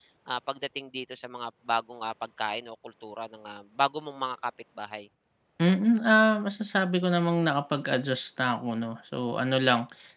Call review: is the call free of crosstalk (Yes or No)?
Yes